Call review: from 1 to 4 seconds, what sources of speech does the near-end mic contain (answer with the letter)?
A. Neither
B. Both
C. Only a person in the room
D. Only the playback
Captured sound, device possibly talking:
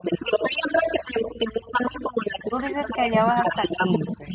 B